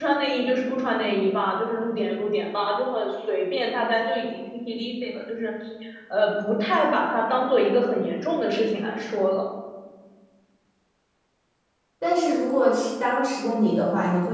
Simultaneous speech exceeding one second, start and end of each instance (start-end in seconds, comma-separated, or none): none